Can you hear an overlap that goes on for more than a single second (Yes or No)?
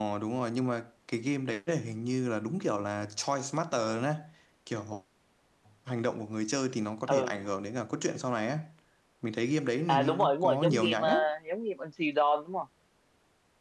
Yes